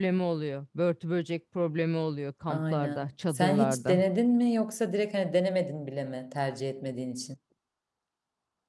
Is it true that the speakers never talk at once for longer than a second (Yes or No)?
No